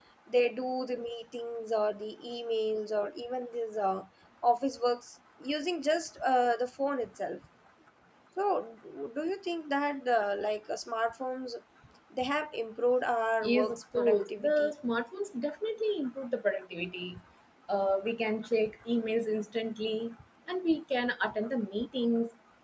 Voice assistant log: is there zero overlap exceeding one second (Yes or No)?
No